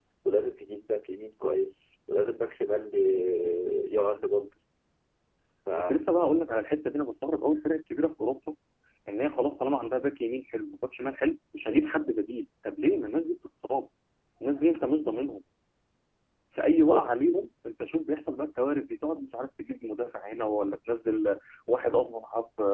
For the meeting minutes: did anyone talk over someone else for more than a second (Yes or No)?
No